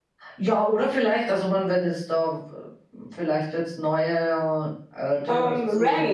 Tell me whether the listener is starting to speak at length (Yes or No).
Yes